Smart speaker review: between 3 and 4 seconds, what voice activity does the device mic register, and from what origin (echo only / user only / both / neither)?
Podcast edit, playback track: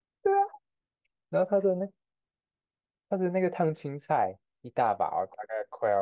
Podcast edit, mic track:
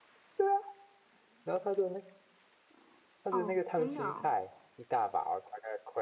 both